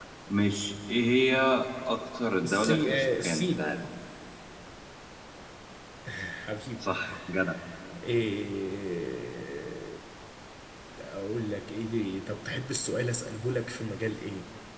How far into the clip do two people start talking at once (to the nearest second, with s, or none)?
2 s